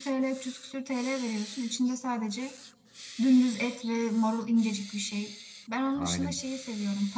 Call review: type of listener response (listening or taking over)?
listening